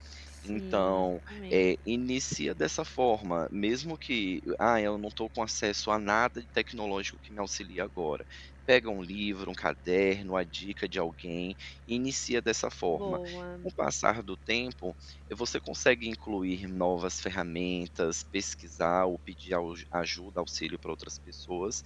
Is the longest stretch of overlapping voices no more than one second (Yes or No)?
No